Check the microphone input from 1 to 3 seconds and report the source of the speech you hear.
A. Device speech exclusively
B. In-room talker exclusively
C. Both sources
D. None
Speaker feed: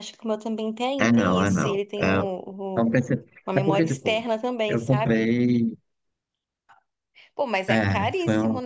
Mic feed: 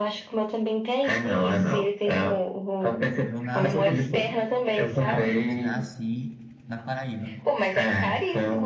A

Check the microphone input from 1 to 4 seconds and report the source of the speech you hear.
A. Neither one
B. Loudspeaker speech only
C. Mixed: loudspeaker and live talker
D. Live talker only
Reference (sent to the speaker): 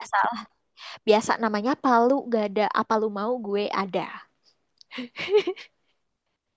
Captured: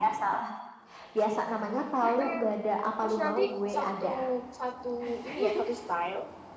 C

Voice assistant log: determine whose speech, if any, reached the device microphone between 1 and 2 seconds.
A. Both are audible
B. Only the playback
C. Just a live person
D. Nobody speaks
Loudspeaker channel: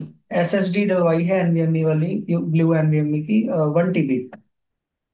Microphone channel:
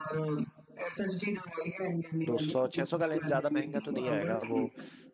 B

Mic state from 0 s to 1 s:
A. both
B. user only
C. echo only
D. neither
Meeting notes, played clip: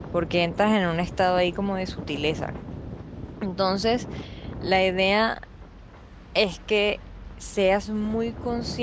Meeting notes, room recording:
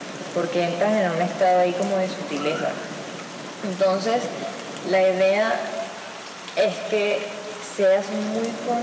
C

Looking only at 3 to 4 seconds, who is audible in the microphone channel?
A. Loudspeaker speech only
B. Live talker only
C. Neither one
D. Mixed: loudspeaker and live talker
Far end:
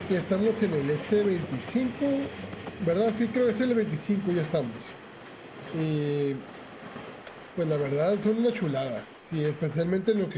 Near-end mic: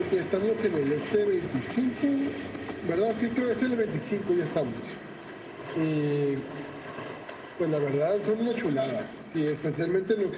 A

